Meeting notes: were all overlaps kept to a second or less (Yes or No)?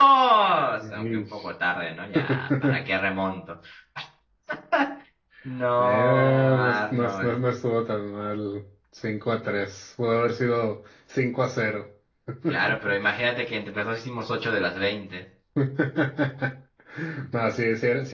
No